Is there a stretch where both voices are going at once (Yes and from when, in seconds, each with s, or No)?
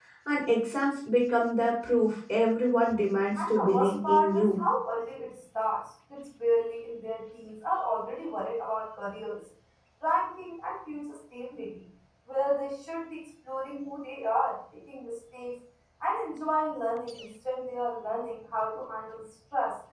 Yes, from 3.4 s